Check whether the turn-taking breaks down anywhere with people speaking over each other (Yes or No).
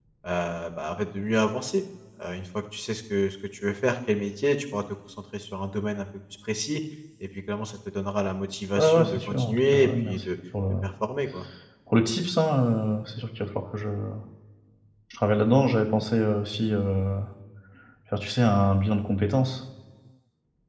Yes